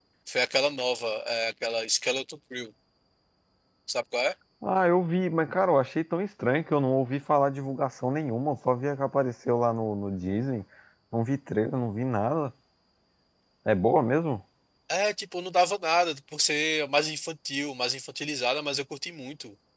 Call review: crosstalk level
none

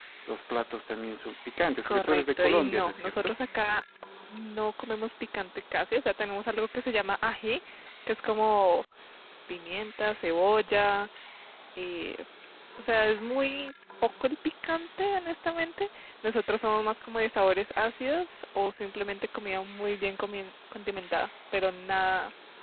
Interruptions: present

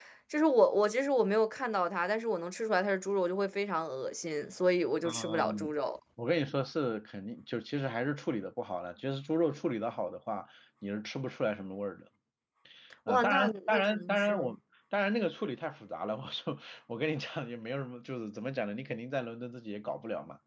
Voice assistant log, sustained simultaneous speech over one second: present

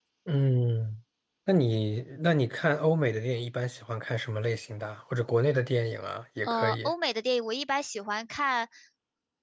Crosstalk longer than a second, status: none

